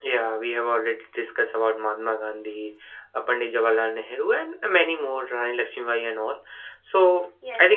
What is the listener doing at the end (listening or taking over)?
listening